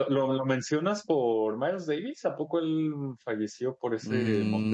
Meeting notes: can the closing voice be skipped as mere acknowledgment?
No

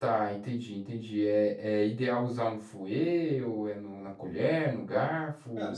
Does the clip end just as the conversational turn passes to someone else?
Yes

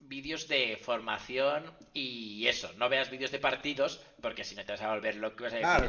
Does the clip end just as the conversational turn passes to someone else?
Yes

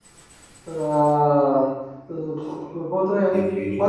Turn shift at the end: No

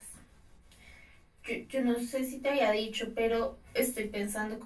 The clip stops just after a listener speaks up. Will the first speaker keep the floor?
Yes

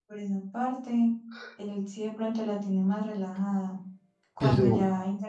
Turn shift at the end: No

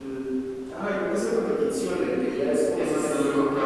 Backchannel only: No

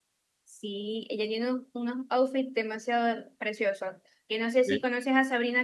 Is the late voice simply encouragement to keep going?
Yes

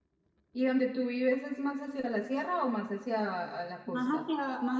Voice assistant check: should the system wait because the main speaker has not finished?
No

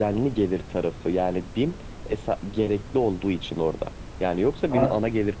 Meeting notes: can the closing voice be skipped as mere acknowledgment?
Yes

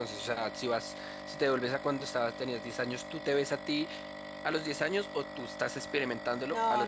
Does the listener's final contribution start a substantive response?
Yes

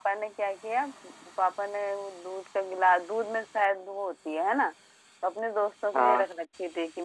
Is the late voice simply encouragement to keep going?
Yes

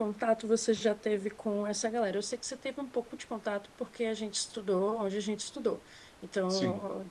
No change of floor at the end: Yes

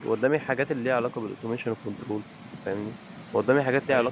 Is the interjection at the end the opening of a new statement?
No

